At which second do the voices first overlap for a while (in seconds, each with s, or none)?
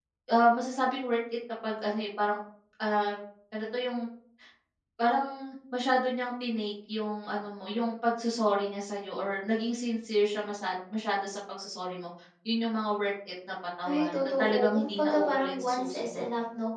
13.8 s